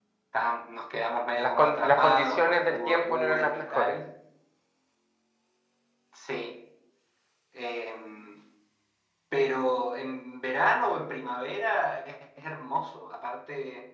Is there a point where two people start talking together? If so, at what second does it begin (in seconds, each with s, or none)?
1.4 s